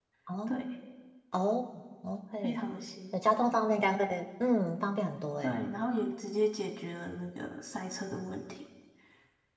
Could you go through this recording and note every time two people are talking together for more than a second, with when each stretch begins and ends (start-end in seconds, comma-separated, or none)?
none